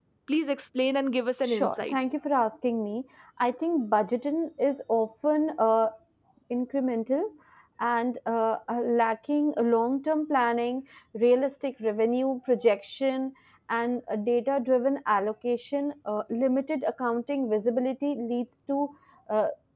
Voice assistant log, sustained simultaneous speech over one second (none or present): none